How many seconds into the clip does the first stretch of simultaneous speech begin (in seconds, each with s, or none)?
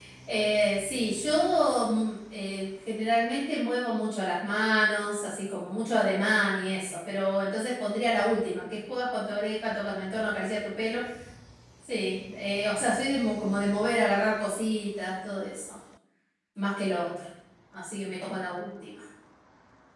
none